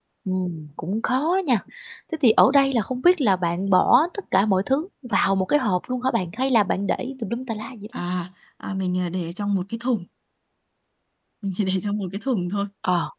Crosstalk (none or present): none